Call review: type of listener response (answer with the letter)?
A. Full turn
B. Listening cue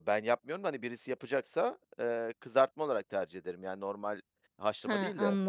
A